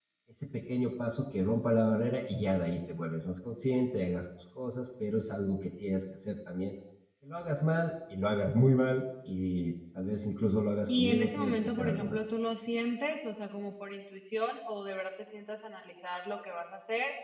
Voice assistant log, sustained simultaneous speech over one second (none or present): present